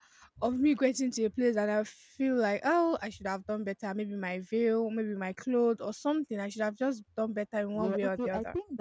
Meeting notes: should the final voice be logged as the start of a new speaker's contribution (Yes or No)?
Yes